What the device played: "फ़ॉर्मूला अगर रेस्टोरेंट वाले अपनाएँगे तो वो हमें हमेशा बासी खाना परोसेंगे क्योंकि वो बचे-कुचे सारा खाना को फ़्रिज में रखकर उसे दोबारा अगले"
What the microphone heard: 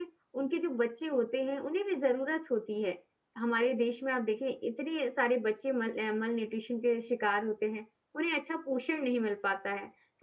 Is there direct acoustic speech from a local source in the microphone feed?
Yes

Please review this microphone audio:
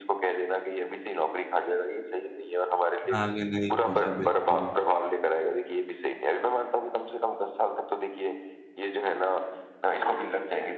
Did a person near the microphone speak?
Yes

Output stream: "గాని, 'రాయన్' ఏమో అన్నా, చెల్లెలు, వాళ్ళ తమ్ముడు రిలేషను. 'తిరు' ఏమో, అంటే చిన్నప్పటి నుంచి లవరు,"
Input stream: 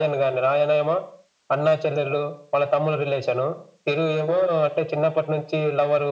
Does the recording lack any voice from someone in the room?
Yes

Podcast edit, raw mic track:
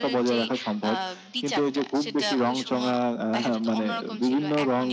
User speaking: No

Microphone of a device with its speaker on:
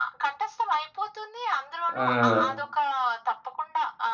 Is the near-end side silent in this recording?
No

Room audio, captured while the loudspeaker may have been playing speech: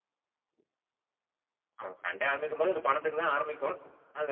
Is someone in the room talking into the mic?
Yes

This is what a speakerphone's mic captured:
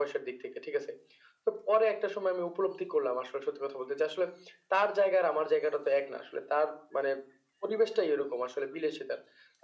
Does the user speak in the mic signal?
No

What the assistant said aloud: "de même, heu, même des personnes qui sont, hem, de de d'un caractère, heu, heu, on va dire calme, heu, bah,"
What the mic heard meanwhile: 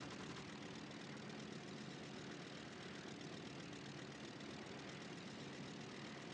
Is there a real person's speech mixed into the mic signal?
No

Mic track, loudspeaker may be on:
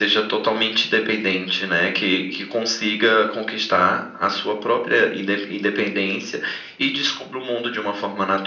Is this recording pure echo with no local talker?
Yes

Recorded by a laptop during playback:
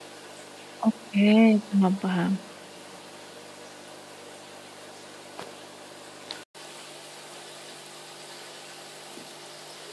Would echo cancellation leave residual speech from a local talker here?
Yes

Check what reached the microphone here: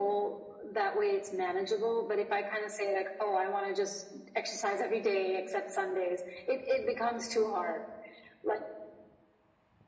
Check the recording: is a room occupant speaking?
No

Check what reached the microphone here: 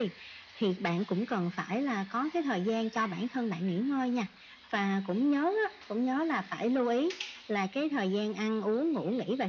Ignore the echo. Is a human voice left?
No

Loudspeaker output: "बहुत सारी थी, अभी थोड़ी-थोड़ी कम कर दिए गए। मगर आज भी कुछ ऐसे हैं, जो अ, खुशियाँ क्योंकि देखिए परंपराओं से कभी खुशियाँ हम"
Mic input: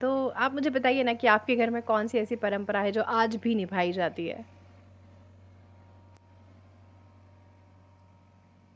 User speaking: Yes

